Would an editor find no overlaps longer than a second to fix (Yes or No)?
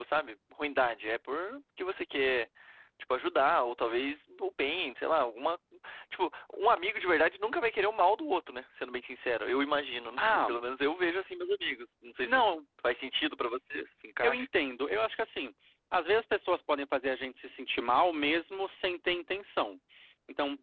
Yes